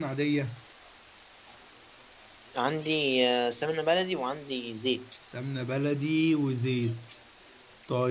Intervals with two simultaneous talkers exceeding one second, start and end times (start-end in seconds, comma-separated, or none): none